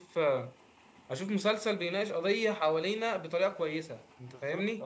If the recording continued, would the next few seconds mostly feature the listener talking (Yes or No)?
Yes